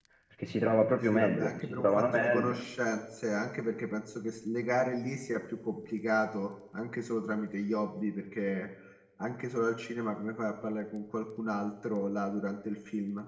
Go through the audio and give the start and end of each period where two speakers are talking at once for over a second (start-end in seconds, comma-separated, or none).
1.1-2.5